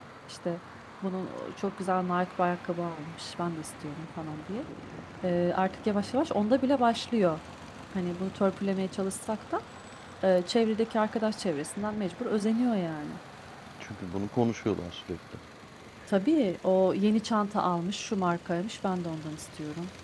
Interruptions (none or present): none